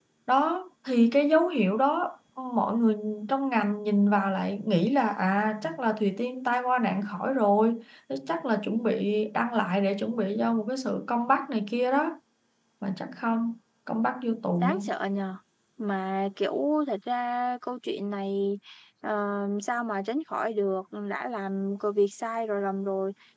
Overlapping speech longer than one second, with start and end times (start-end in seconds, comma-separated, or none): none